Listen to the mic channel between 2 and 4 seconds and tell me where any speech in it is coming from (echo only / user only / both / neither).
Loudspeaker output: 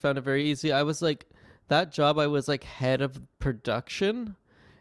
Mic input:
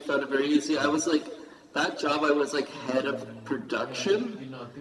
both